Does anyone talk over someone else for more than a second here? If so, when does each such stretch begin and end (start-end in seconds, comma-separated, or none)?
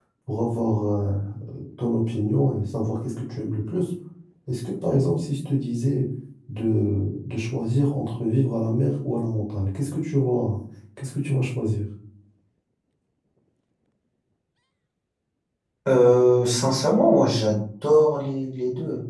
none